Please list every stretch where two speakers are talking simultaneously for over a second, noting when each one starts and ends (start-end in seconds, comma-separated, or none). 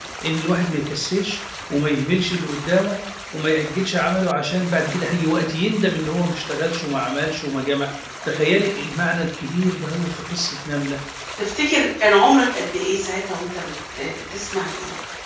none